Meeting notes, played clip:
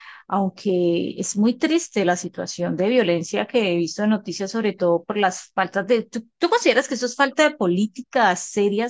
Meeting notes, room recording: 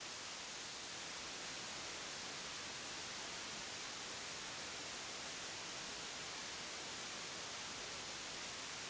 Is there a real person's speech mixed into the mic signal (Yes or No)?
No